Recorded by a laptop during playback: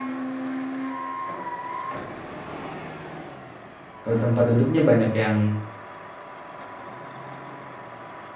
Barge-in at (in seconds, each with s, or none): 4.0 s